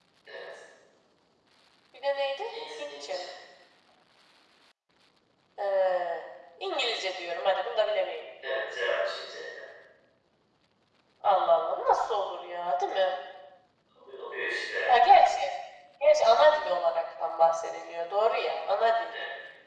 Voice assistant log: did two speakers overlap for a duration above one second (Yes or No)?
No